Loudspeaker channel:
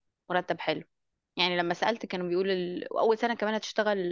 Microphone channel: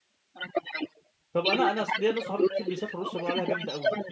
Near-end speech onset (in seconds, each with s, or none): 1.3 s